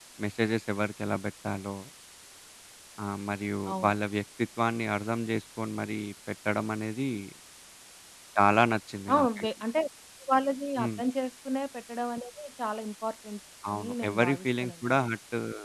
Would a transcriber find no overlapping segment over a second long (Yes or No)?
No